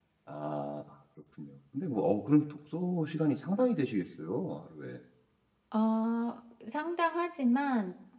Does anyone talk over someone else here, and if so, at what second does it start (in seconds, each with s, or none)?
none